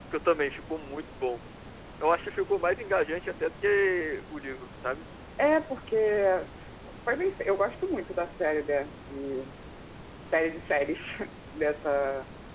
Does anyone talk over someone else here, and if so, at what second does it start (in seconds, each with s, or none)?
none